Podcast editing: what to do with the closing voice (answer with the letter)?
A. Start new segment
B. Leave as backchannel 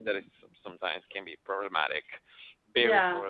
A